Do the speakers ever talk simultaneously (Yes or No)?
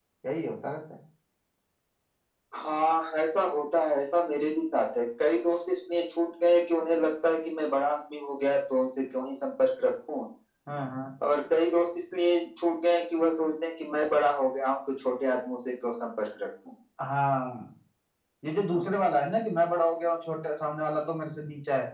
No